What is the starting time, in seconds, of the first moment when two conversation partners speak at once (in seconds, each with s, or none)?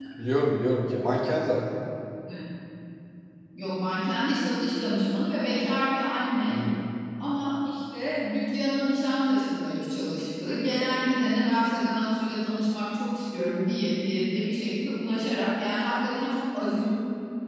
none